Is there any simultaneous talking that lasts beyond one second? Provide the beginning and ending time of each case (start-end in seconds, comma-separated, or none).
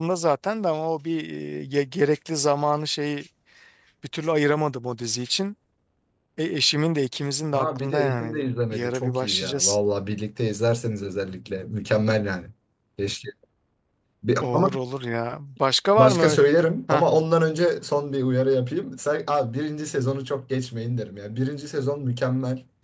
7.5-9.8